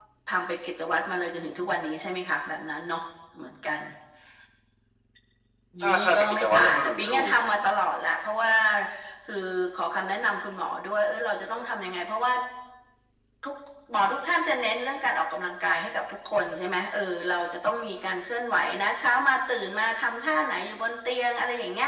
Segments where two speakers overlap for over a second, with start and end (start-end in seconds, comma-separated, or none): 5.8-7.3